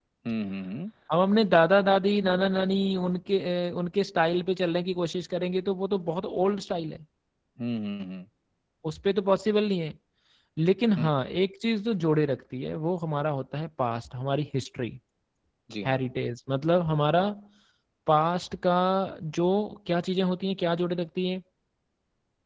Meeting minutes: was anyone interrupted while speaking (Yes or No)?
No